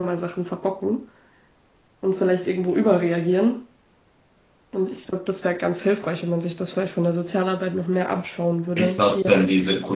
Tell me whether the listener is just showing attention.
No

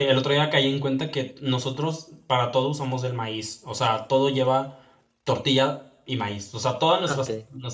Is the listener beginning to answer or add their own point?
No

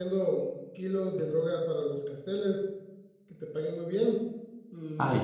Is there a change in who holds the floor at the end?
No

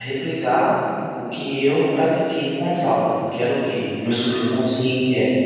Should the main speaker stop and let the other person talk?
No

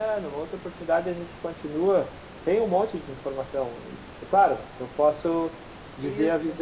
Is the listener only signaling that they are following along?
Yes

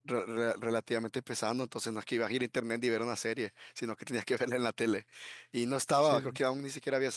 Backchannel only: Yes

